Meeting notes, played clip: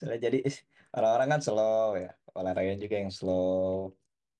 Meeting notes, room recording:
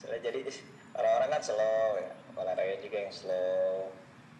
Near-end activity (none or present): none